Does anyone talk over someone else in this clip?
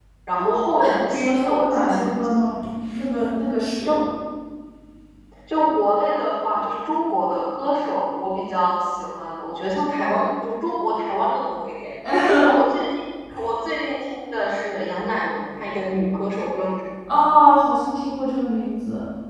Yes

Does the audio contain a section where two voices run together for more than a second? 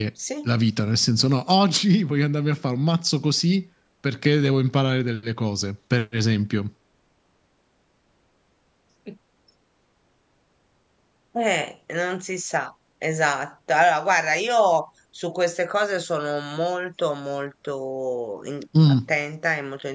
No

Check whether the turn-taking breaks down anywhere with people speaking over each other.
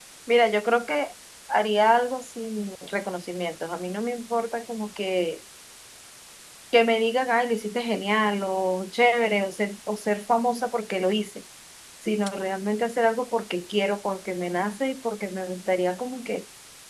No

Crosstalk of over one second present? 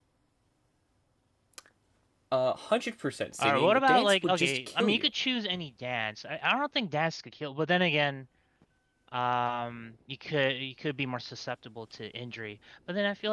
Yes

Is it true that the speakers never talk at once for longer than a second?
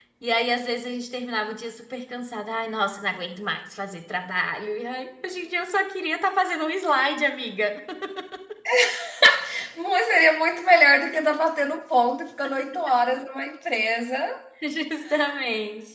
Yes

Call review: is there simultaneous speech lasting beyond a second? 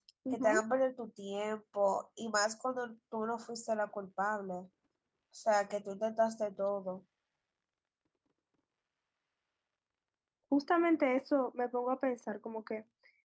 No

